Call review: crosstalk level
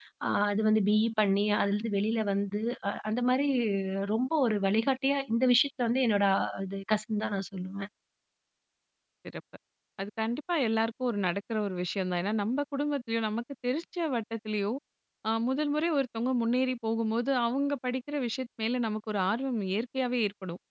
none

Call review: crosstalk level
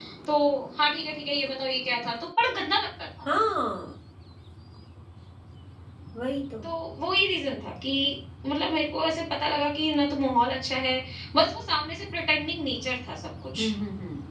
none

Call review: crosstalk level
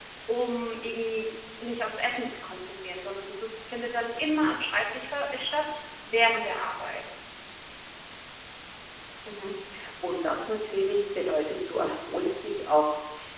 none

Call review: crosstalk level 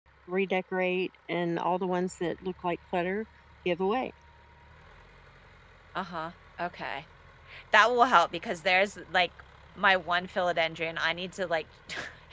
none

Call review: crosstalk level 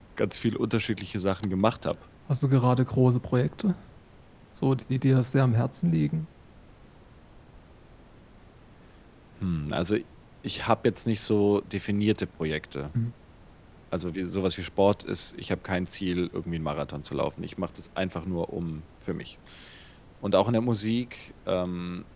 none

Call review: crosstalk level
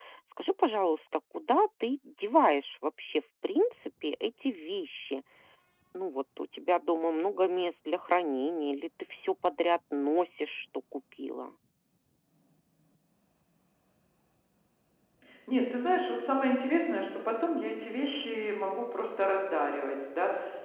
none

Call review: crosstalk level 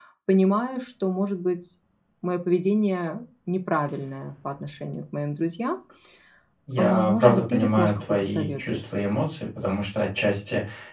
present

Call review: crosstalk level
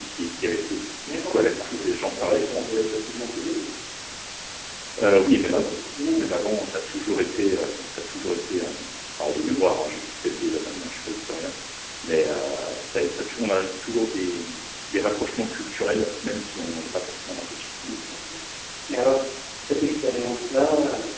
present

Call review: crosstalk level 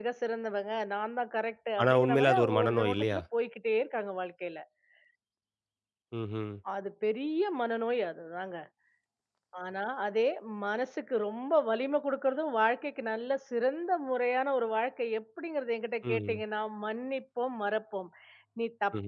present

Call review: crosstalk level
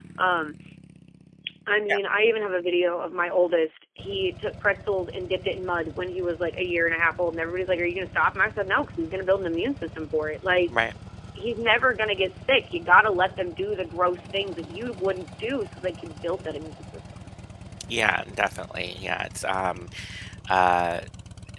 none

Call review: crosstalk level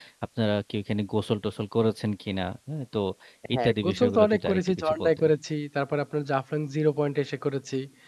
present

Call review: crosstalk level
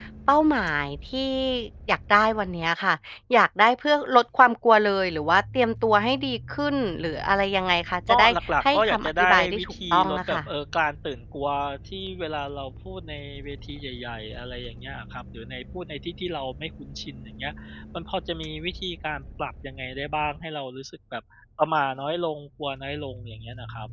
present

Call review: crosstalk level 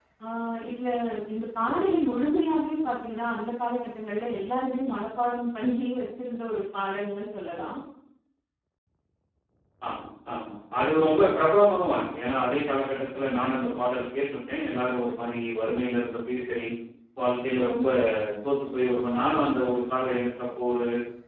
none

